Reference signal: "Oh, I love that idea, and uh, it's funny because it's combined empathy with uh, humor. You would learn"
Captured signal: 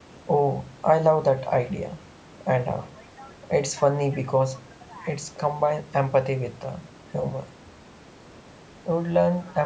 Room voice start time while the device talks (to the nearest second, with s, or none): none